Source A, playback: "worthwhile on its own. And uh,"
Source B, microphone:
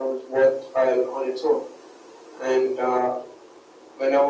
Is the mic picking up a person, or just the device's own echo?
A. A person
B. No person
B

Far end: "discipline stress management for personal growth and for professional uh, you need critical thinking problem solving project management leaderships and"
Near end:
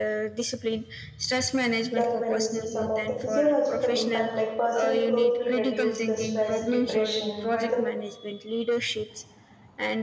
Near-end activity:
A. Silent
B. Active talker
B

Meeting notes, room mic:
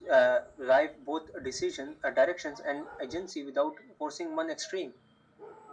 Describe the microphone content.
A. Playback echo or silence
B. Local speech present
A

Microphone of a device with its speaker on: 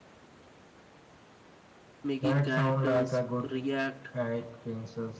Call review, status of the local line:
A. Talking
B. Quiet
A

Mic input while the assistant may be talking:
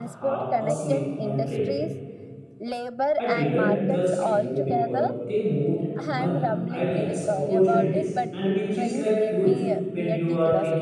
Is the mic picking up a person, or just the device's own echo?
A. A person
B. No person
A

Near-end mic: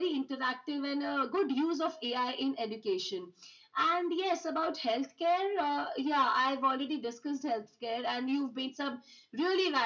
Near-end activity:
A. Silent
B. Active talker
A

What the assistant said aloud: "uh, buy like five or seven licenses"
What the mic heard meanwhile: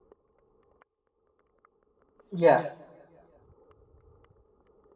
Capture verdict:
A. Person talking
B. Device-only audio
A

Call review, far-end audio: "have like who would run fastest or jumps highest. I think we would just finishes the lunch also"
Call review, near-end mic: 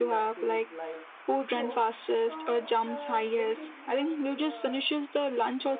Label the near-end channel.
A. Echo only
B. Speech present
B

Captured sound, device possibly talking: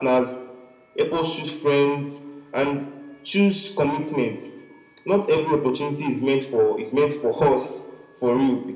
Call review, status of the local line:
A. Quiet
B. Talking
A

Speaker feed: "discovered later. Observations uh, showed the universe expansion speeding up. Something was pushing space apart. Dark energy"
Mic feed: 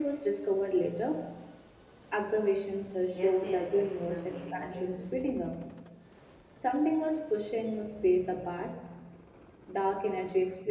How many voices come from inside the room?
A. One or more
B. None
A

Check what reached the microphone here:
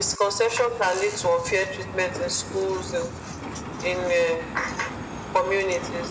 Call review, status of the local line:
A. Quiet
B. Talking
A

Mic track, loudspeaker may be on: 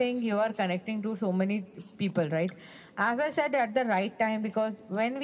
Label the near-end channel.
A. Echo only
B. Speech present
A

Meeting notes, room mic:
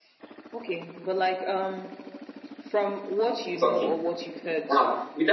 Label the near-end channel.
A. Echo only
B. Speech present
B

